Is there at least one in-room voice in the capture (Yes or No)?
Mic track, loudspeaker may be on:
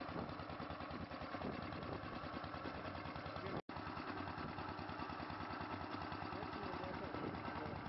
No